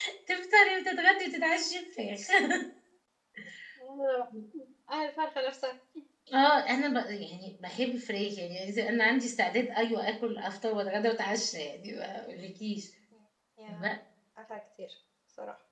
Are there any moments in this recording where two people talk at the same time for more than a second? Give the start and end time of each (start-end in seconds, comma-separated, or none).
none